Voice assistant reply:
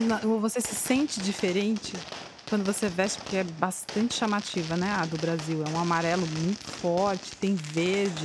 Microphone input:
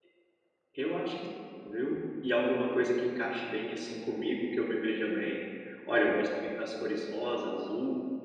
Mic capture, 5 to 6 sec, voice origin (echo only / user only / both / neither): user only